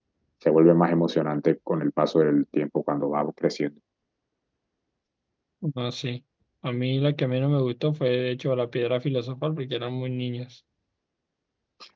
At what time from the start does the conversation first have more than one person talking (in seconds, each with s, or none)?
none